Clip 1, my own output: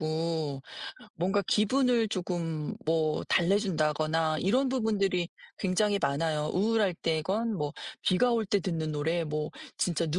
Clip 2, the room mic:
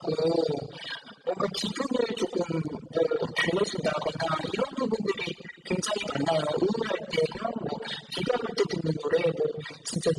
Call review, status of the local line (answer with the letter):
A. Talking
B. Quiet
B